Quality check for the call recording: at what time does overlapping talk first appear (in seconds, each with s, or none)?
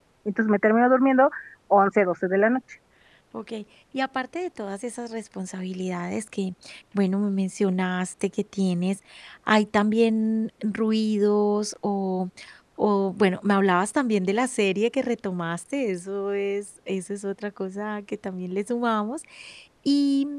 none